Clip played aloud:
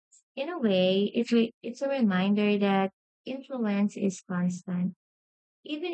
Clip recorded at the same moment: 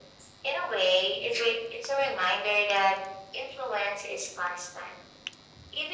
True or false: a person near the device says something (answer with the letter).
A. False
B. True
A